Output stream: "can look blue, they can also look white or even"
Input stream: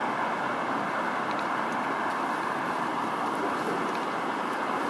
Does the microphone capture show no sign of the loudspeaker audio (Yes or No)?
Yes